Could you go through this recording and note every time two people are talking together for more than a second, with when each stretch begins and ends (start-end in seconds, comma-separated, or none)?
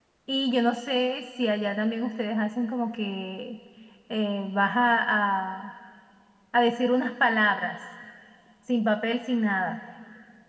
none